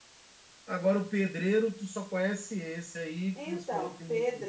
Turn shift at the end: Yes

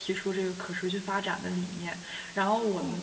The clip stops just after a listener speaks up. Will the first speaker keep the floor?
Yes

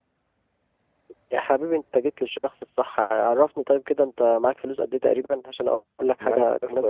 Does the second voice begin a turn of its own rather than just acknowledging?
Yes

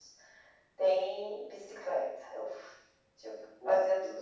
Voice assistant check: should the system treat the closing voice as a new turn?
No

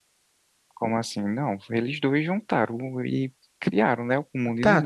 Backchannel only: No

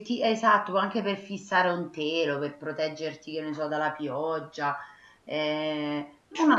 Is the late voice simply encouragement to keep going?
Yes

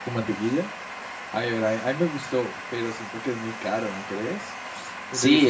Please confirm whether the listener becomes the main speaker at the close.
Yes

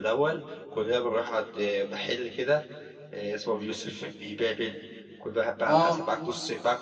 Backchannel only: Yes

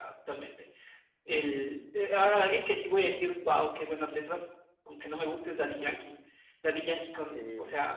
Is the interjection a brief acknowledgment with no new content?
Yes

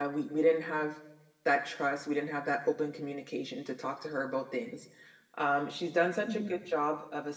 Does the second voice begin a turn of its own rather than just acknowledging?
No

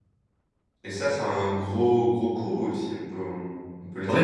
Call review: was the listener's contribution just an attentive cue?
No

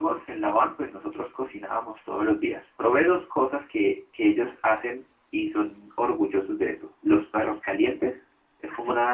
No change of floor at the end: Yes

